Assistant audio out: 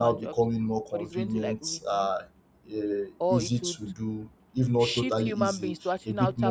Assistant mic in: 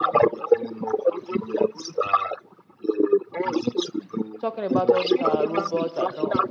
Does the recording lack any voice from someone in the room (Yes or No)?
No